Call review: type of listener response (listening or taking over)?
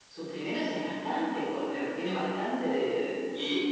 taking over